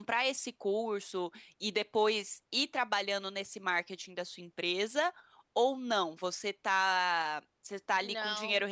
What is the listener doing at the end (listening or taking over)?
listening